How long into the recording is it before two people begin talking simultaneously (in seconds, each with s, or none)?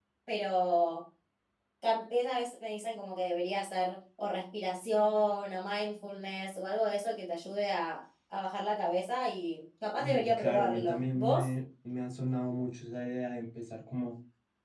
10.0 s